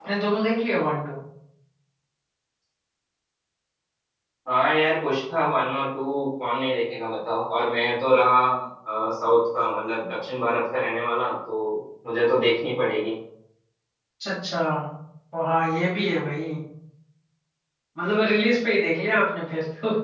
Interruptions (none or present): none